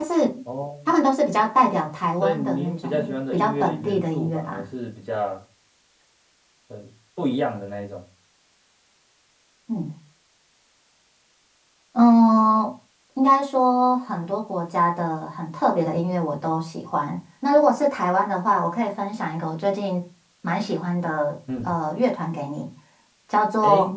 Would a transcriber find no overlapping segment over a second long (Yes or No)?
No